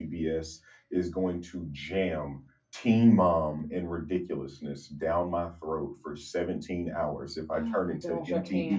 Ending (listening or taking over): taking over